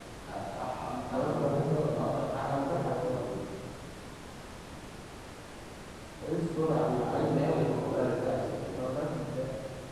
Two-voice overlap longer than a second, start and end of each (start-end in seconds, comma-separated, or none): 0.8-3.3, 6.6-8.8